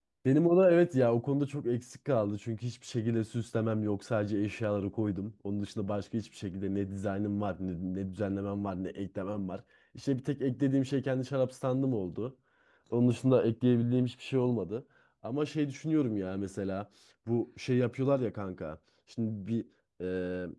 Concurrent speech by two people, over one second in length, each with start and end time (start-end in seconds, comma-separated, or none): none